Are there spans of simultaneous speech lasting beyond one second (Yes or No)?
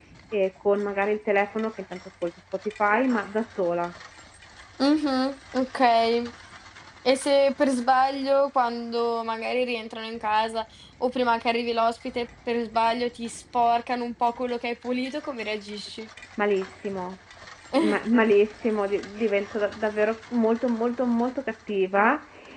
No